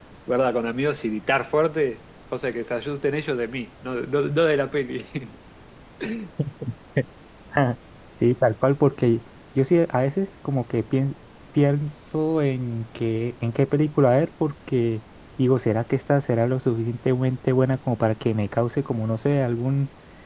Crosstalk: none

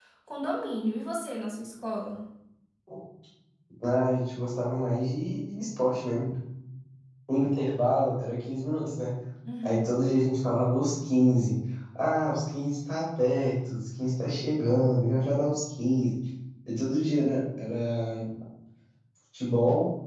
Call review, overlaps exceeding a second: none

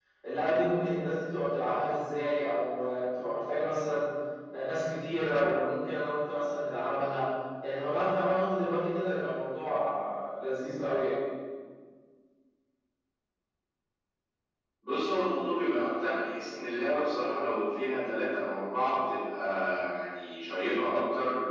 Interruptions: none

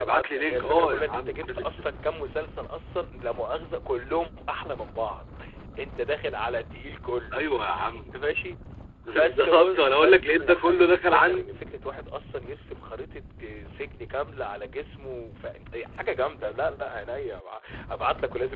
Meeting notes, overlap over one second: present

